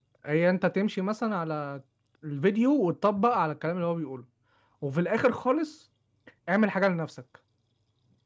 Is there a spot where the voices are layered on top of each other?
No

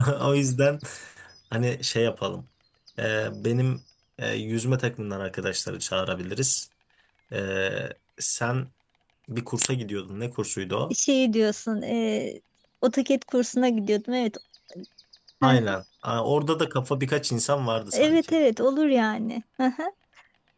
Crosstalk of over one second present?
No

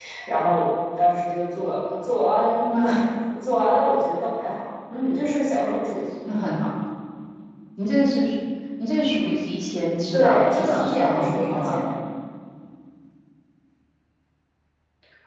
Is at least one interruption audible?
Yes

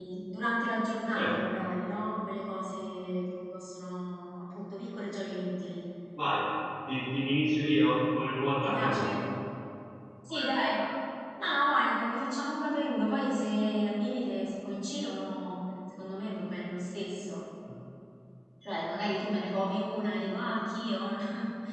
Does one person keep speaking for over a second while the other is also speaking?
No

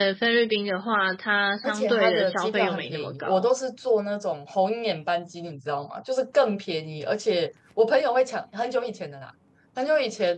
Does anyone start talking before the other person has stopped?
Yes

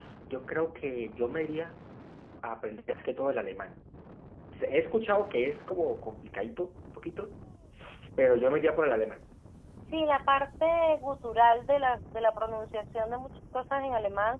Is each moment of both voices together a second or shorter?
Yes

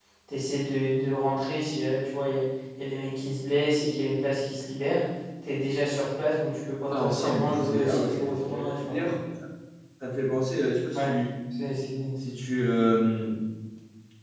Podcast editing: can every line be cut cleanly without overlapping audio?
No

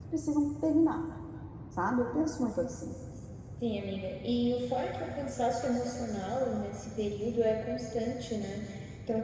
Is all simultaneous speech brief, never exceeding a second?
Yes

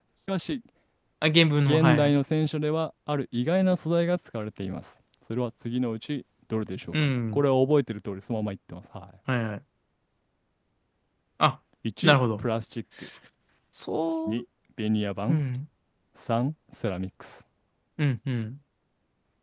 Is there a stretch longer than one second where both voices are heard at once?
No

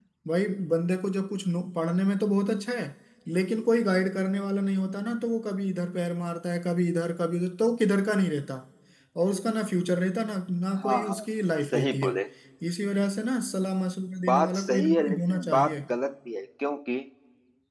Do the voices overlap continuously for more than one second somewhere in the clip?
Yes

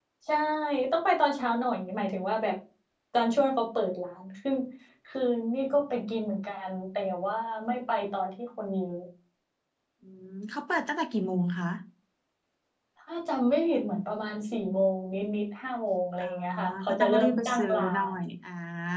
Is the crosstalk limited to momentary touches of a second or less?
No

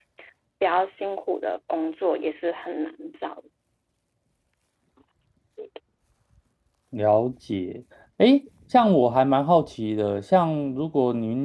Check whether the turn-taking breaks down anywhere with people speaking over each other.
No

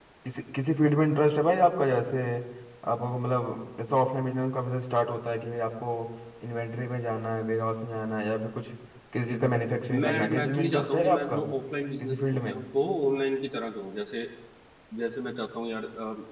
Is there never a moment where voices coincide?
No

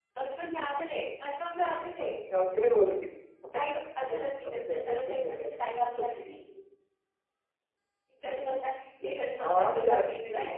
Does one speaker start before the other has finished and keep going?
Yes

